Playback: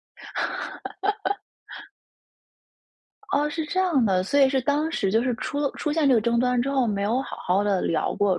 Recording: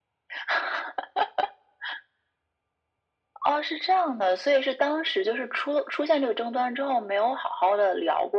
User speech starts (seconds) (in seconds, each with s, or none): none